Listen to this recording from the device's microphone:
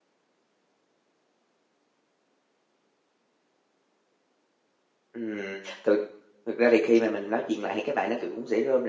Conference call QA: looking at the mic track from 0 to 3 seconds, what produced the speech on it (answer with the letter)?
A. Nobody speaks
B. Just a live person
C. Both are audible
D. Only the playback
A